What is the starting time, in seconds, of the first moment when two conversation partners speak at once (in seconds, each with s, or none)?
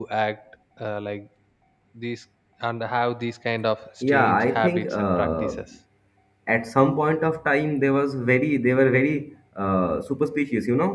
4.0 s